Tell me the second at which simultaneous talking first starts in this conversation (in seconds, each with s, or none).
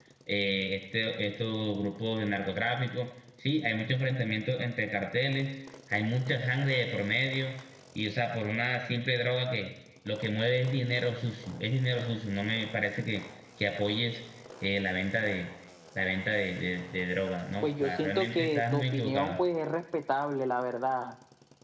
17.6 s